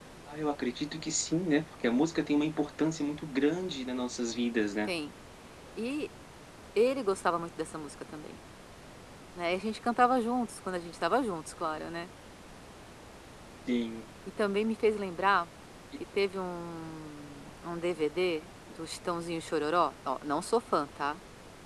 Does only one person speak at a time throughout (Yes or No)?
Yes